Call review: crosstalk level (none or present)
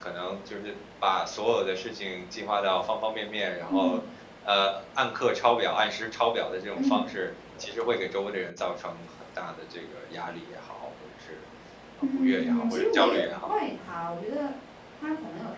present